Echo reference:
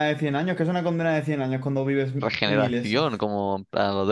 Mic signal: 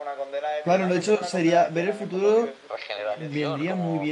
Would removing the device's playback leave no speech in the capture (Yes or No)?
No